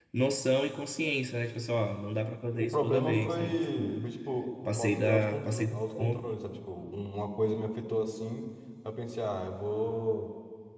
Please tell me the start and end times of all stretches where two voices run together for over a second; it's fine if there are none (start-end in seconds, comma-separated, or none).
2.6-4.0, 4.8-6.2